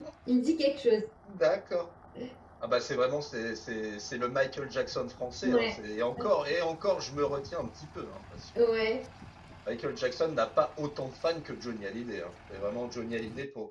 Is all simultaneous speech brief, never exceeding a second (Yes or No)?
Yes